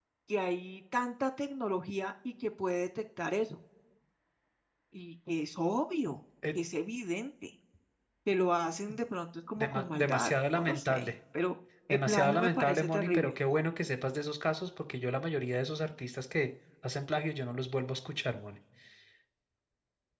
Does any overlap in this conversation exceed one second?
Yes, from 9.6 s

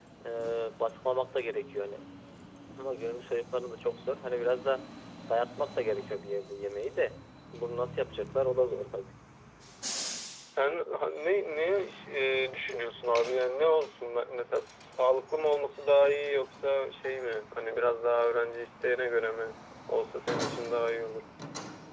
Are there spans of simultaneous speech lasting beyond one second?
No

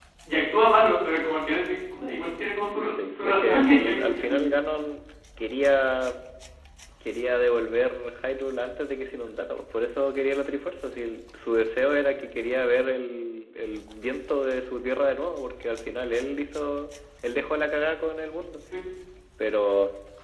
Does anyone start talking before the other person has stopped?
Yes, from 2.8 s

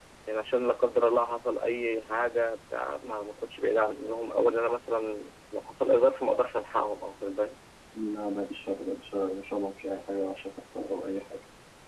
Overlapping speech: No

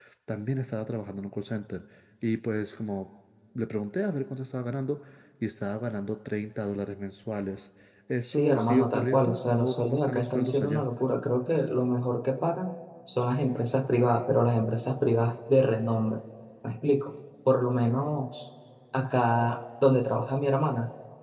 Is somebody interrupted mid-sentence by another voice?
Yes, from 8.2 s

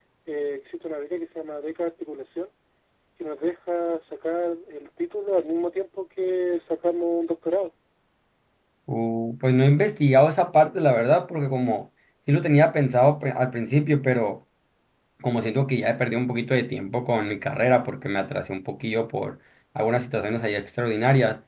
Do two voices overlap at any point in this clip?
No

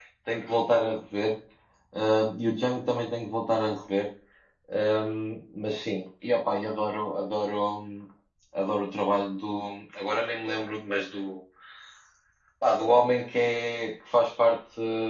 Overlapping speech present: No

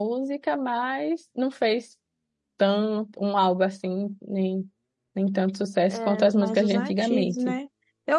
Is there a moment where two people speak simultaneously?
Yes, from 6.0 s

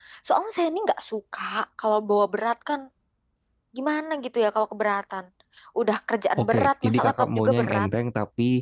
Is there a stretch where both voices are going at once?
Yes, from 6.4 s

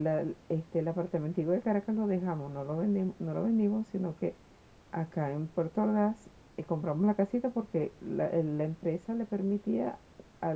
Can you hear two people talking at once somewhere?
No

